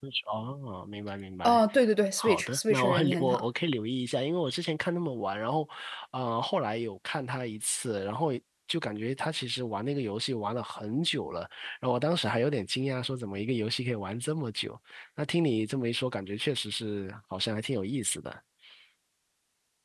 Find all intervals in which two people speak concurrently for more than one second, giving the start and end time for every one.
2.2-3.4

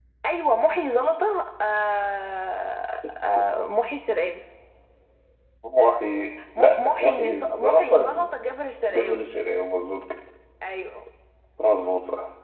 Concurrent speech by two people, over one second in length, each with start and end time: 6.6-8.1

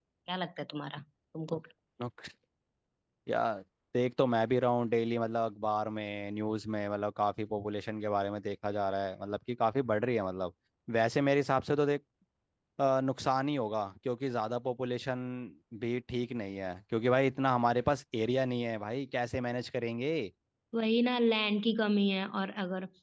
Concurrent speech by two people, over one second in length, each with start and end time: none

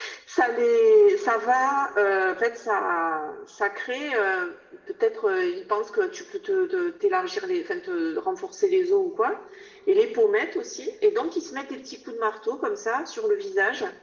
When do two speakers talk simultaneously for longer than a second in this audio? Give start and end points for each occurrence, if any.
none

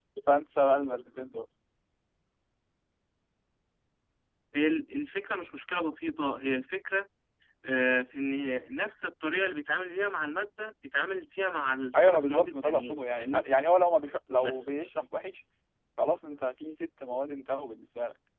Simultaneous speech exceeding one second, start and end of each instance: 11.9-13.4

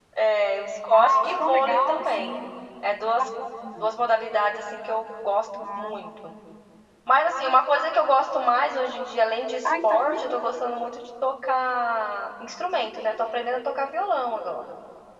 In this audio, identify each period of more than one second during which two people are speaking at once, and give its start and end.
0.9-2.3

